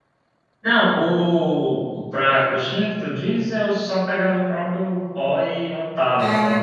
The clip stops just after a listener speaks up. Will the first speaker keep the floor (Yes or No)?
Yes